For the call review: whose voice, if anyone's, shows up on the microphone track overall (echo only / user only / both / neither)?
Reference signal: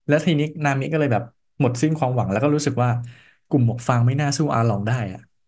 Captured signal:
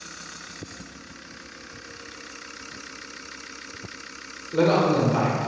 user only